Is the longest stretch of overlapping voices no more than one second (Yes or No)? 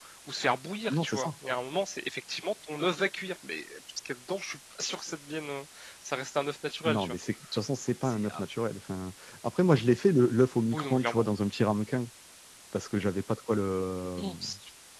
Yes